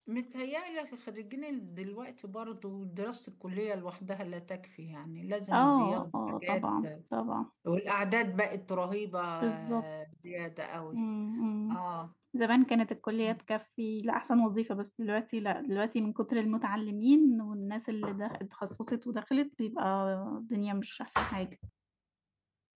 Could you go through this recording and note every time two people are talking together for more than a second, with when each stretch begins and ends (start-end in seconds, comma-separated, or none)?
5.5-6.7